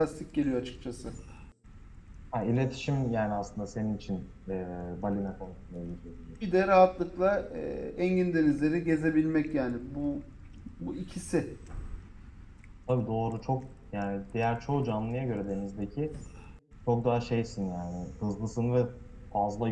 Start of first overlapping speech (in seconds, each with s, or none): none